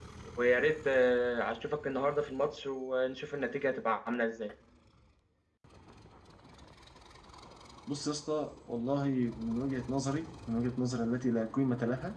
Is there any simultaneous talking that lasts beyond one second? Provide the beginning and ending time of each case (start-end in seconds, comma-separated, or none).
none